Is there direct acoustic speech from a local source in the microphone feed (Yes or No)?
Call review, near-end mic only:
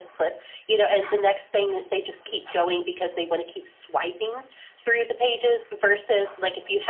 No